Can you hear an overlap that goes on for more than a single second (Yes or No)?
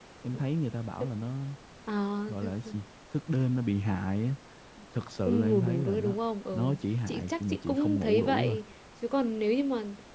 Yes